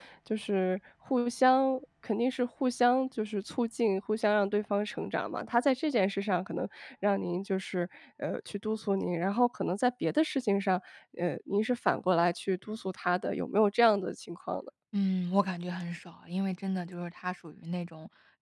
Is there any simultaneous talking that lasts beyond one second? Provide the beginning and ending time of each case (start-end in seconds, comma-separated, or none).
none